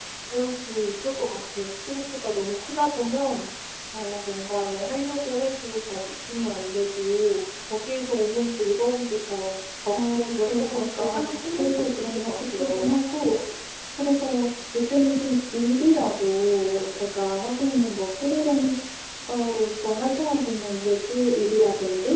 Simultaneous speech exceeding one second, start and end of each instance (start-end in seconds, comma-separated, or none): 9.9-12.9